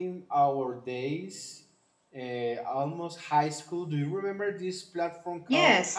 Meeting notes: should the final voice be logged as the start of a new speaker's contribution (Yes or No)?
Yes